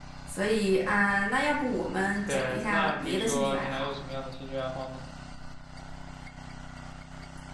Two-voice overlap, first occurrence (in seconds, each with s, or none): 2.2 s